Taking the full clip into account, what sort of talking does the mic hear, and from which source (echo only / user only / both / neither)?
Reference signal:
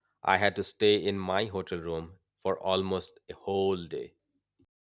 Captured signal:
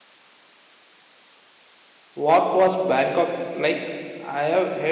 user only